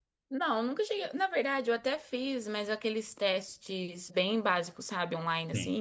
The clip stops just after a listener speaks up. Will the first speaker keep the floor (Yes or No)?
Yes